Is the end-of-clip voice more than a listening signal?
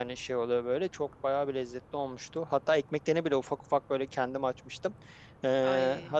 No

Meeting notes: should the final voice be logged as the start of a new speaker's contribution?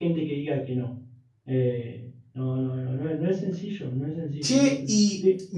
Yes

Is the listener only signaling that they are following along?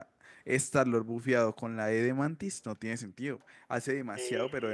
No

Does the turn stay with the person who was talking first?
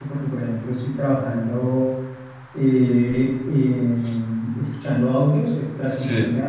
Yes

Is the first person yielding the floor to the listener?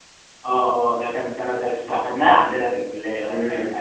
Yes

